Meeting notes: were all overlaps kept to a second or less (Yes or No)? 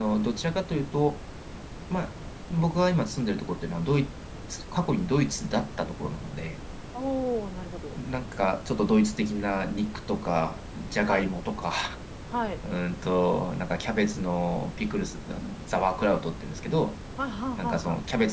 Yes